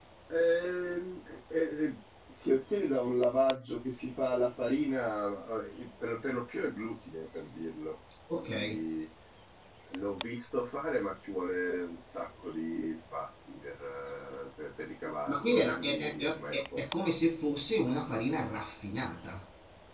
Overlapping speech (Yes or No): Yes